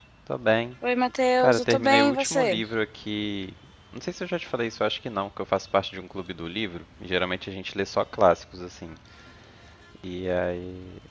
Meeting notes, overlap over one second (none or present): present